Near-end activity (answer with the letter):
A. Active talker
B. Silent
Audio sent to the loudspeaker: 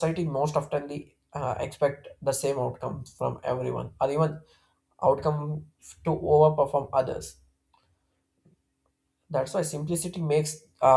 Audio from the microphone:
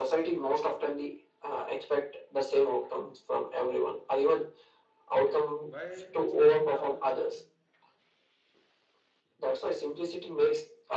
A